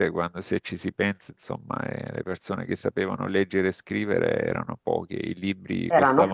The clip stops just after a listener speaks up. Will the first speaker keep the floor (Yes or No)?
Yes